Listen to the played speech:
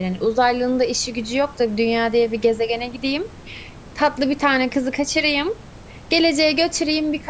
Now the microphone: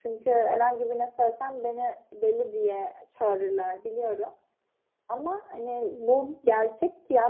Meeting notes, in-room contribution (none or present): present